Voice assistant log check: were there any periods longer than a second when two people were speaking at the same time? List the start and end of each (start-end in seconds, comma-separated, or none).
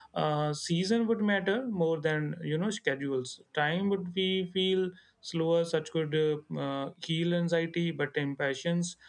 none